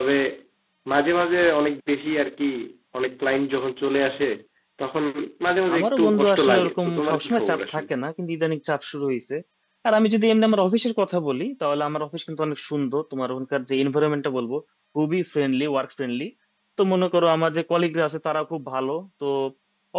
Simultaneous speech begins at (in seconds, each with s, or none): 5.7 s